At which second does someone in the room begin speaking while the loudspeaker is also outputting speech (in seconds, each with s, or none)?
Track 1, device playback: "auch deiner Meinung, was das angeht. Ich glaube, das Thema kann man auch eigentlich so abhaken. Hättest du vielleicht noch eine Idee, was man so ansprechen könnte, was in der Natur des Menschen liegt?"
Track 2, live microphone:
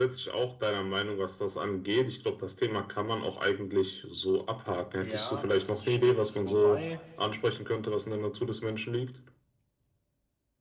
4.9 s